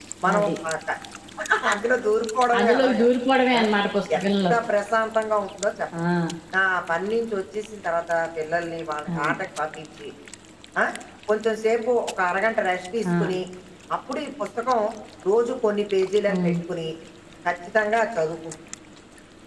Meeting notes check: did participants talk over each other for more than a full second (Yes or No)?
No